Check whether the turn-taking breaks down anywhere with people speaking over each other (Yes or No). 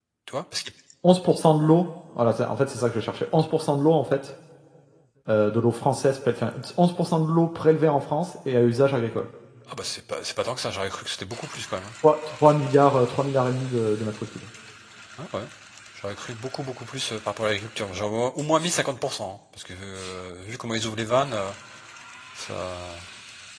No